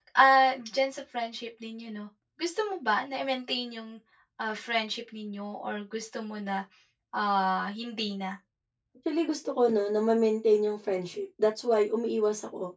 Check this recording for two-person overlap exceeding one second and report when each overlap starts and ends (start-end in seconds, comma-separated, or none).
none